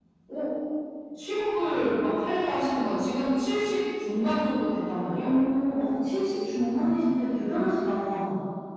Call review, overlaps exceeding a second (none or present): none